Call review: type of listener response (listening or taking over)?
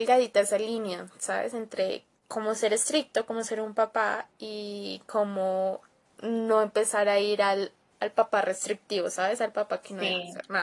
taking over